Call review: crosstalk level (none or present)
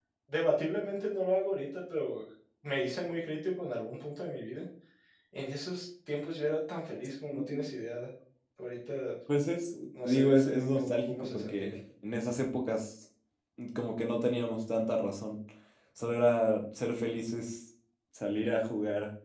present